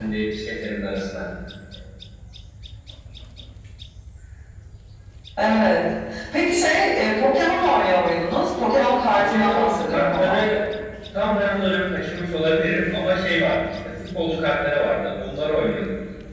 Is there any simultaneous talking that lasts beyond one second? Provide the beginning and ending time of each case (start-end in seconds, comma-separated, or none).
9.2-10.4